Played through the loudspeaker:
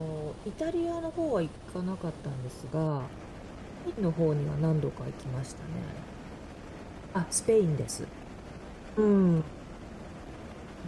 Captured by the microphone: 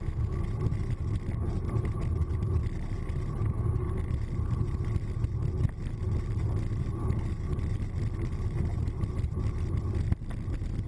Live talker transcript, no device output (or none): none